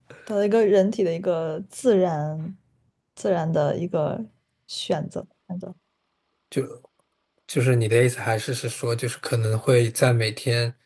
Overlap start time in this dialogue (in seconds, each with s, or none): none